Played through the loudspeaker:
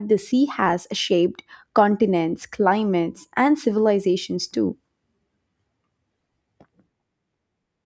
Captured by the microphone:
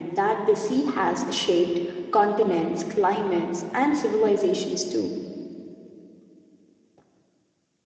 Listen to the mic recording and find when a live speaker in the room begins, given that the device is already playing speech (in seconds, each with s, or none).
none